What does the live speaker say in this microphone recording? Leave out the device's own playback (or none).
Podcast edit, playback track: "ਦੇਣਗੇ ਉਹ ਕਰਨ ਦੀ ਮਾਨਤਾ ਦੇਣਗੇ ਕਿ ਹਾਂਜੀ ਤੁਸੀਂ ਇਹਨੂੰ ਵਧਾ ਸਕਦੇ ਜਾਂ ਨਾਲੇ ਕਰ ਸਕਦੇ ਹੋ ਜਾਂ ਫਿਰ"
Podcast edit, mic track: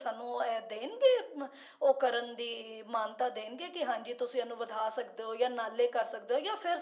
none